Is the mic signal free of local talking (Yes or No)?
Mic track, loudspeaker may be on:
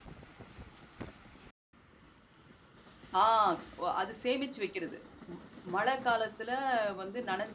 No